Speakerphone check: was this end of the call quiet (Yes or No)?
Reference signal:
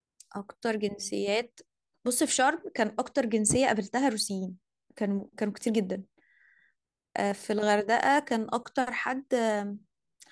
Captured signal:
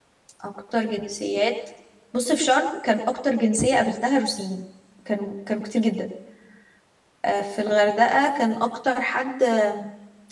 Yes